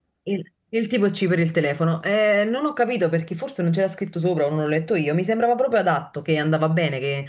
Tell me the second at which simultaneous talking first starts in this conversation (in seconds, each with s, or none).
none